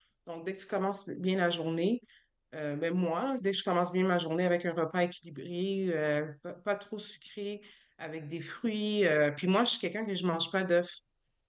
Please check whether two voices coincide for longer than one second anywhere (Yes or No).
No